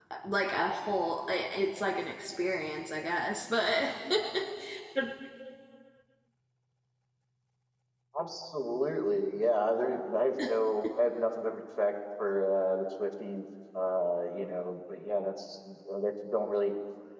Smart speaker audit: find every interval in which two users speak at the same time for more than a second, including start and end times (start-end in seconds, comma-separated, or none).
none